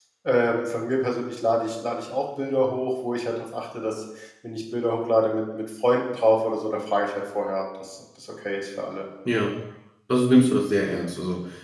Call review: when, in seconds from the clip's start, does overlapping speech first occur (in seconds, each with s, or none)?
none